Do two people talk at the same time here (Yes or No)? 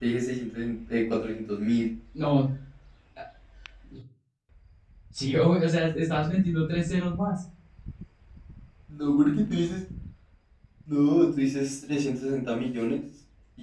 No